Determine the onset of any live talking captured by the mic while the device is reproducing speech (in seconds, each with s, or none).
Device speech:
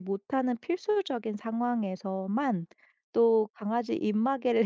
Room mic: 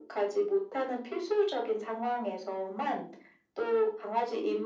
none